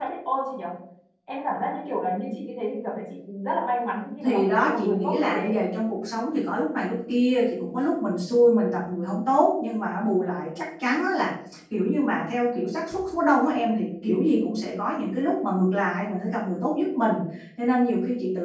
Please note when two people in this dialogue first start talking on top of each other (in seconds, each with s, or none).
4.2 s